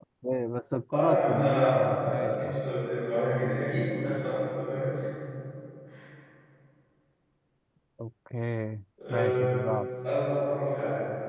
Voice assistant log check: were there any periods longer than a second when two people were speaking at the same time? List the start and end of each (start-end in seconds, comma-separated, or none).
0.9-2.7